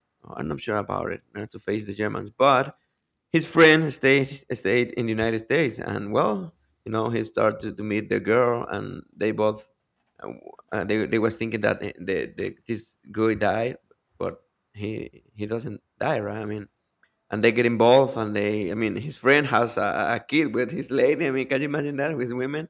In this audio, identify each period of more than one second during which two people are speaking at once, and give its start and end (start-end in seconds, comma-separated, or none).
none